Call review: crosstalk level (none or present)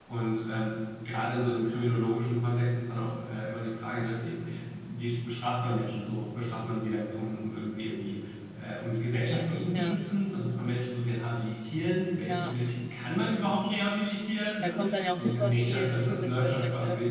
present